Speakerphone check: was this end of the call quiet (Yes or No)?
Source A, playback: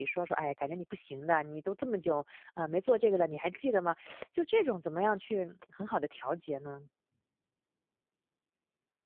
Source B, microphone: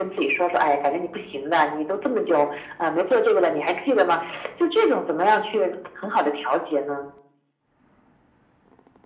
Yes